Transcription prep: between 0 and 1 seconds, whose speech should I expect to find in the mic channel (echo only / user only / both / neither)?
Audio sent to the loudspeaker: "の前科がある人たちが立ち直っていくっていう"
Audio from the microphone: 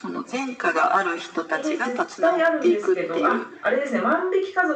echo only